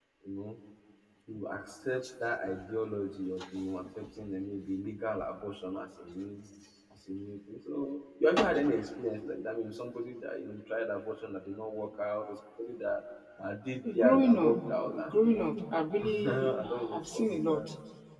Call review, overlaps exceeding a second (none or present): present